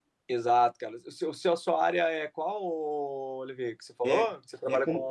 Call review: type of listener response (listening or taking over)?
taking over